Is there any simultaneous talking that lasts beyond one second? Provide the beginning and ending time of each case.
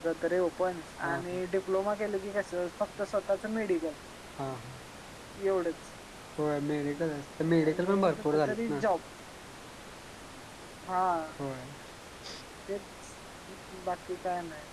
7.6-8.8

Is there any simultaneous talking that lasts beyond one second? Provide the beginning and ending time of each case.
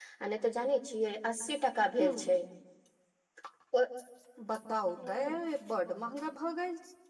none

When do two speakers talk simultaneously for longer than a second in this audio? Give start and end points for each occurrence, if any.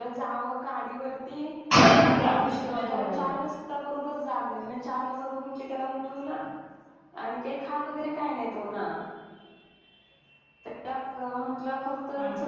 2.1-3.5

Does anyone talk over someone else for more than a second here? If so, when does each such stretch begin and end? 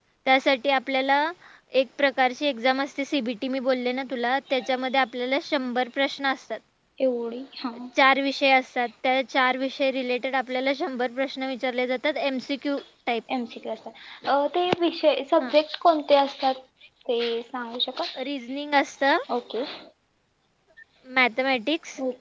none

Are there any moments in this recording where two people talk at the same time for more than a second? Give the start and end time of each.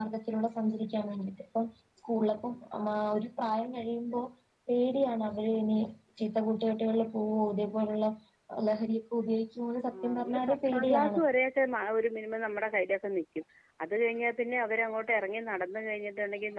9.9-11.2

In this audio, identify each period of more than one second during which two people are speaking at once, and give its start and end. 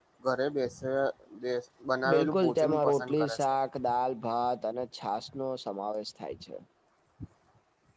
2.1-3.5

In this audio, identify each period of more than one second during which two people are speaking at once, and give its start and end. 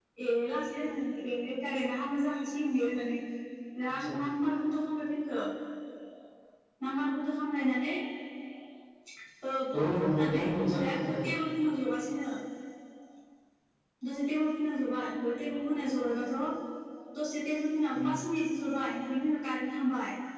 9.7-11.3

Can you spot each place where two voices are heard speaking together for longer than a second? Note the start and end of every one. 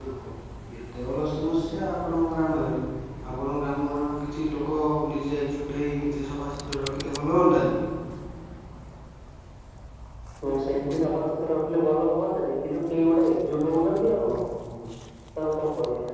none

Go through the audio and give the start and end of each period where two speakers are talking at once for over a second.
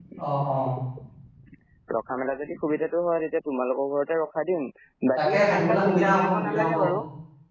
5.2-6.7

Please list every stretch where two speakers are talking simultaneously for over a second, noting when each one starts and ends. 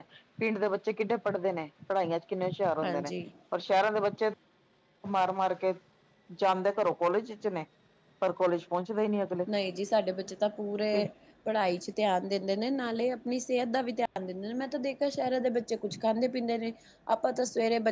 none

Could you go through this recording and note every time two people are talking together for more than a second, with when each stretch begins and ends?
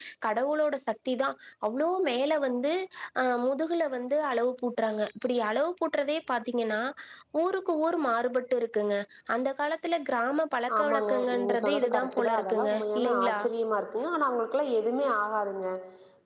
10.8-13.4

